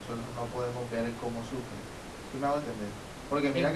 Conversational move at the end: listening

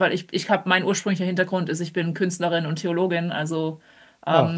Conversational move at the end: listening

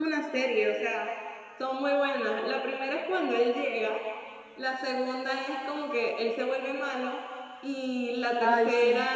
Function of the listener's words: listening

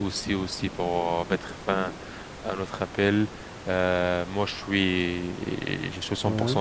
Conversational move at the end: listening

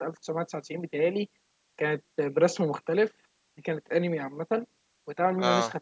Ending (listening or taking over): listening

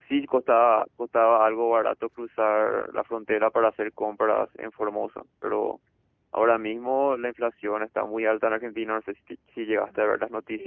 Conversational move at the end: taking over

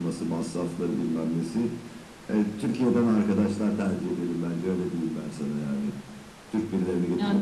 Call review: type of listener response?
taking over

